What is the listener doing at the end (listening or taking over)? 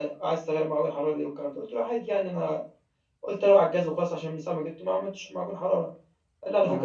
listening